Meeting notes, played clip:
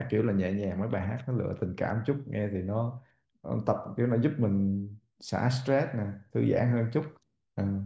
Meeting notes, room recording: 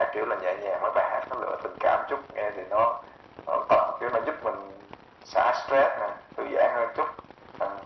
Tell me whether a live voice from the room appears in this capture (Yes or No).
No